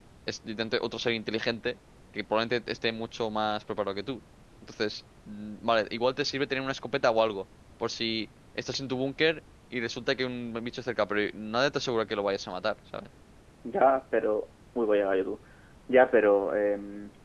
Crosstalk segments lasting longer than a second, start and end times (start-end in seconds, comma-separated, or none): none